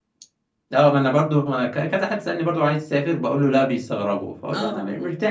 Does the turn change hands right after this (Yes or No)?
No